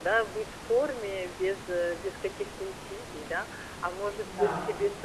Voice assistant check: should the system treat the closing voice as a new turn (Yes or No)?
No